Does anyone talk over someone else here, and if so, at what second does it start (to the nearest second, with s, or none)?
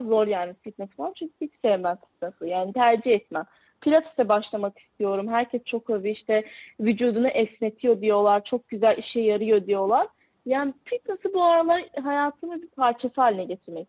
none